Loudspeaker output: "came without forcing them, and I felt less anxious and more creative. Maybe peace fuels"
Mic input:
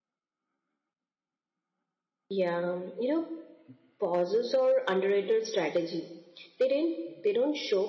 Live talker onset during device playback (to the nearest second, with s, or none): 2 s